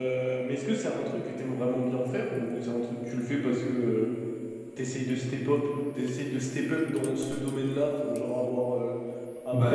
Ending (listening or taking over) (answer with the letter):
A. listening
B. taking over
A